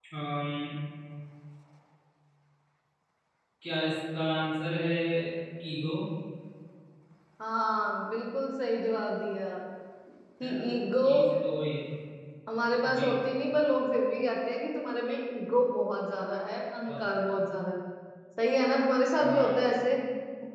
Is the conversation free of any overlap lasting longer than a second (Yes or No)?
Yes